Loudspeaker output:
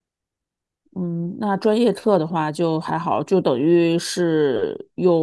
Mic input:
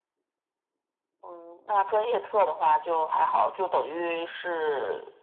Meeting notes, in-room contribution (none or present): none